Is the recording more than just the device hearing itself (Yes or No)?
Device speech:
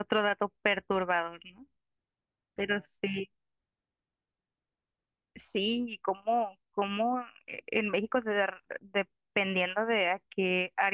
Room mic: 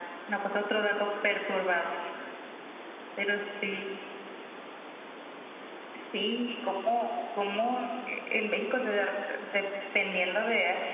No